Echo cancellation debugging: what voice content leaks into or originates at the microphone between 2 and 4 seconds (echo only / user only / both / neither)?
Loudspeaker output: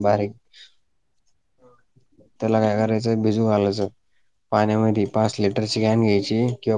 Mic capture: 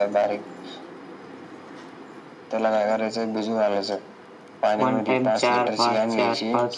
echo only